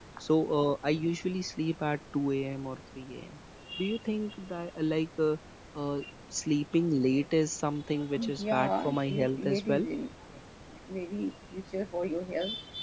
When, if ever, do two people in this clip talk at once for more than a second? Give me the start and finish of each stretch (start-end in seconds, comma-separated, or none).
8.2-9.8